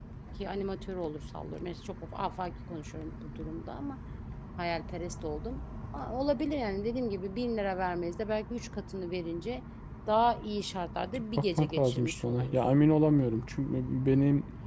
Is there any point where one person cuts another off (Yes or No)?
Yes